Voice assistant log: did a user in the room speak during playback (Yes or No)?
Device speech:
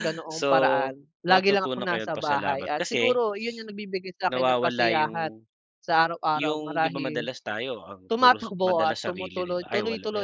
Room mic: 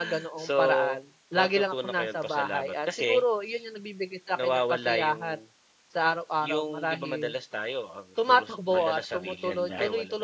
Yes